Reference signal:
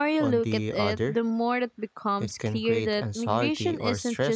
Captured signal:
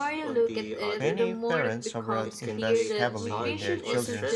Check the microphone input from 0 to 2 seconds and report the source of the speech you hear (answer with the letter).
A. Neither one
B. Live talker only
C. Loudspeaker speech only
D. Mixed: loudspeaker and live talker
D